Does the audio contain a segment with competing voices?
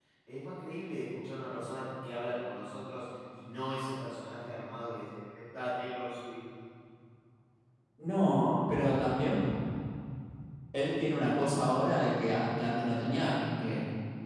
No

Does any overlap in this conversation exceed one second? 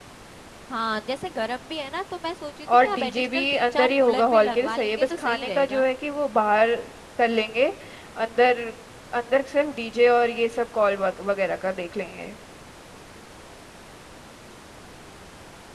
Yes, from 2.7 s

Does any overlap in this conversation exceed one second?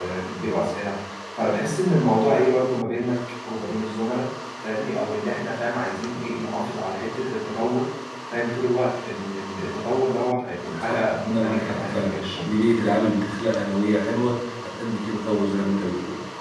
Yes, from 10.8 s

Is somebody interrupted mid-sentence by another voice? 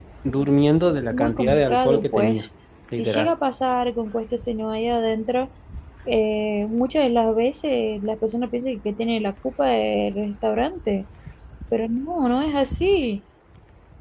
Yes, from 1.1 s

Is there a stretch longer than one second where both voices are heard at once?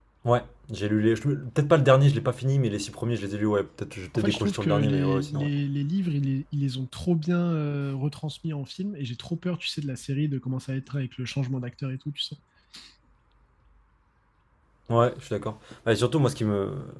Yes, from 4.2 s

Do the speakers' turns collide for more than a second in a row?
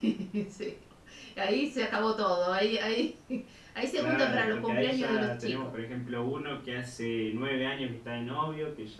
Yes, from 4.0 s

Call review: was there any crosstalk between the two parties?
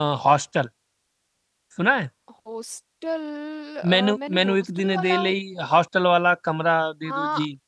Yes, from 3.9 s

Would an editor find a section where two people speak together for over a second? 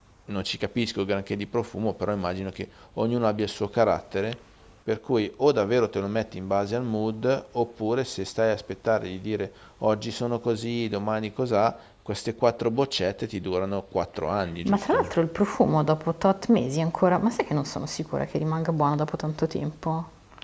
No

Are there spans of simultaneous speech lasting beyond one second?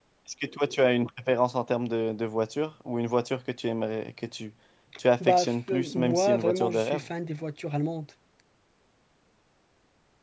Yes, from 5.2 s

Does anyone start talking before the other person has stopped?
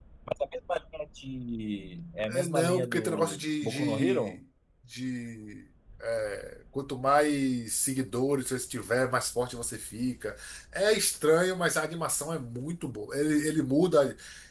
Yes, from 2.3 s

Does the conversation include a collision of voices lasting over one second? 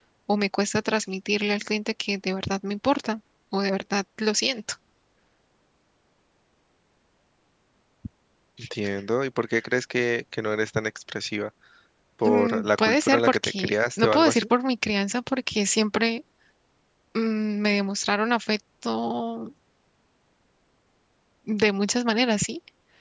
Yes, from 12.2 s

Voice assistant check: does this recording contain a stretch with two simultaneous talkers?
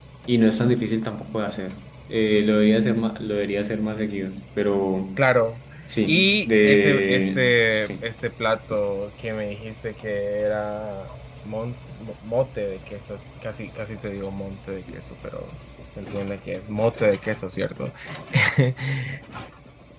Yes, from 6.1 s

